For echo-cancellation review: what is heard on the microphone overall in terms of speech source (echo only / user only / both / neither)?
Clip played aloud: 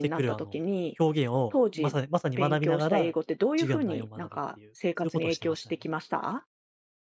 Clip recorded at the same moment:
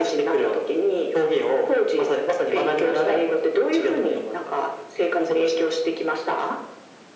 echo only